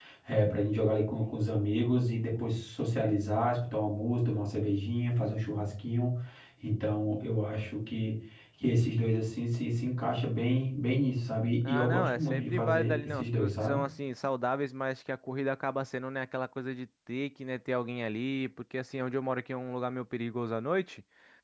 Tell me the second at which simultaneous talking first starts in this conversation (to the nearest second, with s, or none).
12 s